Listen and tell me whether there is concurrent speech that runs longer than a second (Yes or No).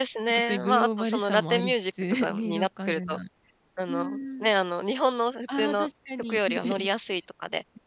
Yes